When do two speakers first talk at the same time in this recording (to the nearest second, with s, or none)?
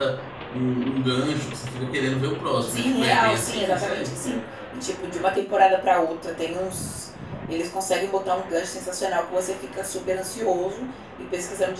3 s